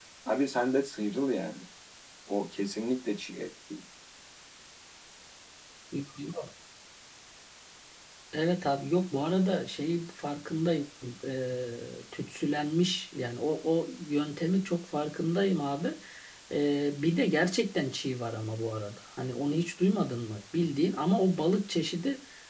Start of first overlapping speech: none

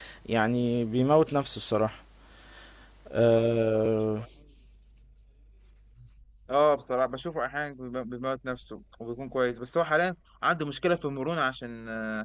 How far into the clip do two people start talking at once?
none

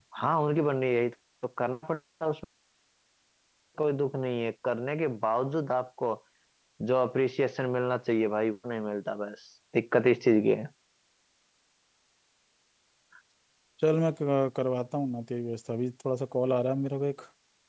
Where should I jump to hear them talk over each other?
none

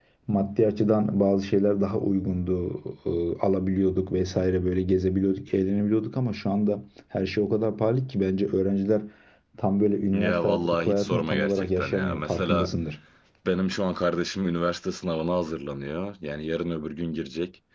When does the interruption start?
10.1 s

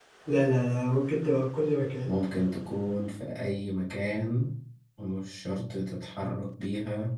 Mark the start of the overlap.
none

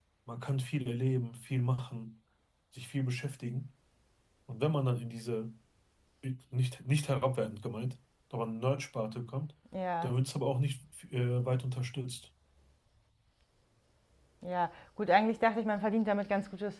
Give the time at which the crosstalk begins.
none

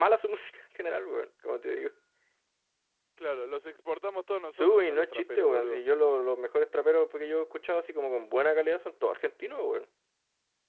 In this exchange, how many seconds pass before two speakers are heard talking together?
4.6 s

